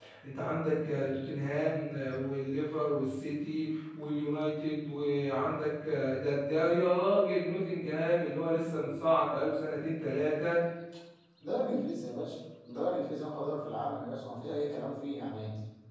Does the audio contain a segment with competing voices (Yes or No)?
No